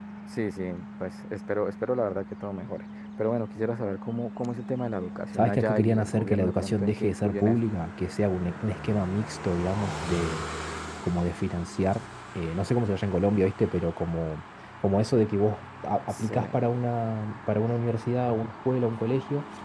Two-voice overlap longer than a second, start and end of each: 5.3-7.7

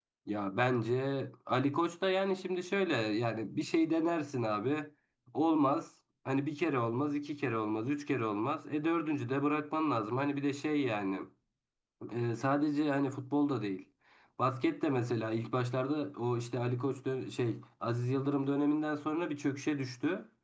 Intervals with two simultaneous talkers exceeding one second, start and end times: none

